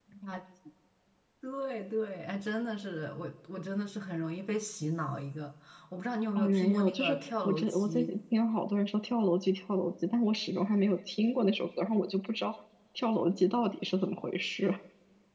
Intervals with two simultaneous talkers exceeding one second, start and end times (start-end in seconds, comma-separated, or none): 6.3-8.1